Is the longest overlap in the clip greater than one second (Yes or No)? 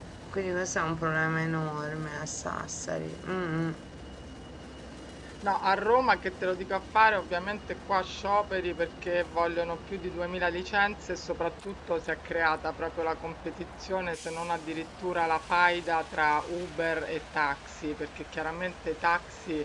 No